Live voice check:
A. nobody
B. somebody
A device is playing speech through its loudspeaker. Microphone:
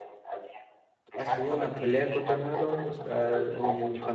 B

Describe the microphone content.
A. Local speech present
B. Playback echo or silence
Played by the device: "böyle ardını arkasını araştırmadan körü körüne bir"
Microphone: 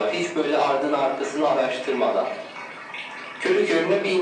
B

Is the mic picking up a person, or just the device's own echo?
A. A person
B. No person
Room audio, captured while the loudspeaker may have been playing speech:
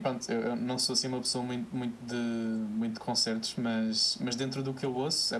B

